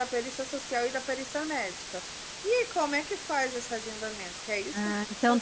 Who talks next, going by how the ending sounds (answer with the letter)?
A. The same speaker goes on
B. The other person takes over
B